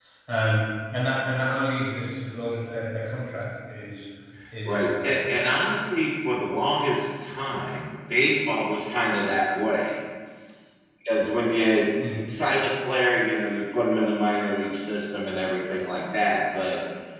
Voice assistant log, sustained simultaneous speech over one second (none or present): none